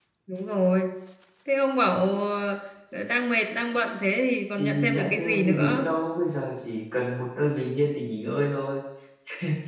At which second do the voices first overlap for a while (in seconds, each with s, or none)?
4.6 s